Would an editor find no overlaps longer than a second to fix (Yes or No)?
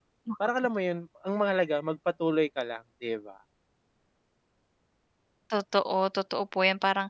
Yes